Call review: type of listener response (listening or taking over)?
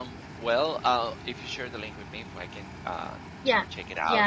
taking over